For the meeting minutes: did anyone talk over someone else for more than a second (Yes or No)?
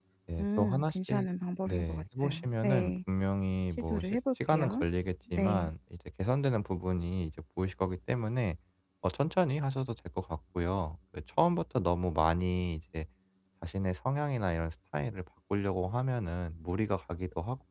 Yes